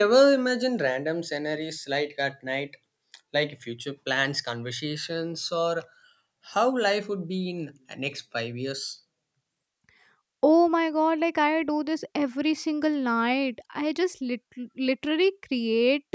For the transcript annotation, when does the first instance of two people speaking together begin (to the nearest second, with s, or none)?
none